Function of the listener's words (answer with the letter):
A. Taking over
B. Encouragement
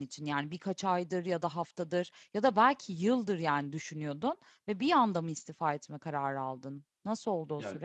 A